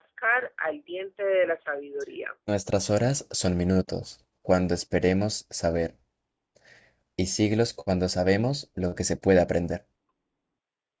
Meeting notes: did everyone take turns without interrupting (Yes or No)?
Yes